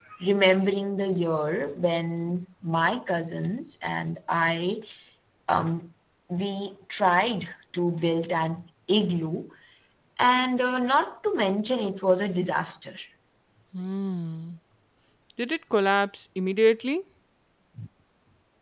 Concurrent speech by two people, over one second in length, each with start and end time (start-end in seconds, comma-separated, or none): none